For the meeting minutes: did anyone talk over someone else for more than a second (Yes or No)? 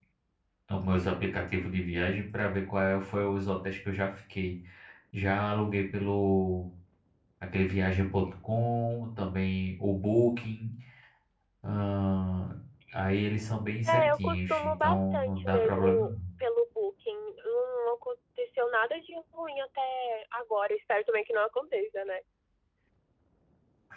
Yes